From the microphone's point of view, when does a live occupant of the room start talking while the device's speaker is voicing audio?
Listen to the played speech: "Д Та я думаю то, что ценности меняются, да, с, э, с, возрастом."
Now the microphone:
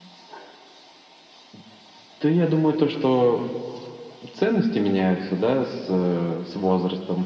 none

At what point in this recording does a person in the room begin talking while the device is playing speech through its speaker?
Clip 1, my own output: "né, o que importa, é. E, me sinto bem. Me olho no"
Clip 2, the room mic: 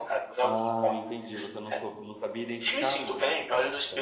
0 s

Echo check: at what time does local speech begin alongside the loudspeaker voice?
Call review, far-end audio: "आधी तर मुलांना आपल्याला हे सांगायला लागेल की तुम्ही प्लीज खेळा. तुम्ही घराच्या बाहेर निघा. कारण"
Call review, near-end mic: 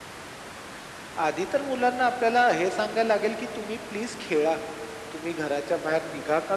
none

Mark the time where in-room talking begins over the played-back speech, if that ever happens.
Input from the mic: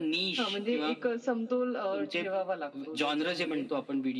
none

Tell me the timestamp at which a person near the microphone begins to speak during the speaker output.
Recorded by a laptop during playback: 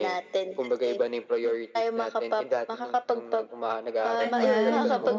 4 s

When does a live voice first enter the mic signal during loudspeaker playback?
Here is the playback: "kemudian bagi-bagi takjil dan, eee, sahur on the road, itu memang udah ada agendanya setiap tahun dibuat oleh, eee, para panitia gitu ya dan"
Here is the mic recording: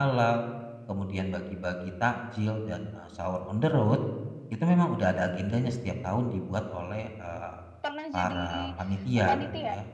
8 s

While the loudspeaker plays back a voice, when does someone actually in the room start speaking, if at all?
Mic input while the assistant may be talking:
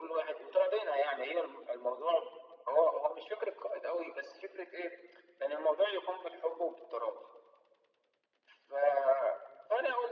none

